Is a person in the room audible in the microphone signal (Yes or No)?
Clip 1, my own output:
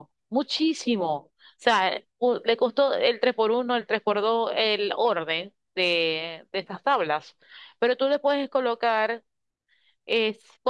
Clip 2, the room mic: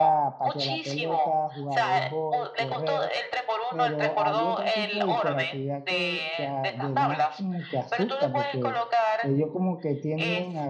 Yes